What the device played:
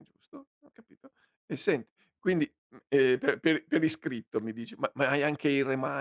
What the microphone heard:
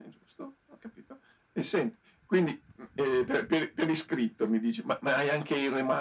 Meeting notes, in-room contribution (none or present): none